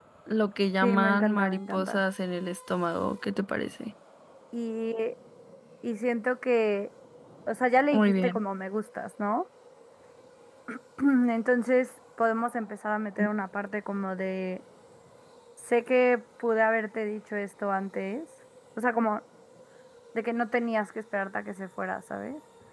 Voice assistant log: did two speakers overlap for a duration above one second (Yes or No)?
Yes